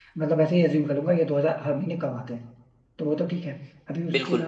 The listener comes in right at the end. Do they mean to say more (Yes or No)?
No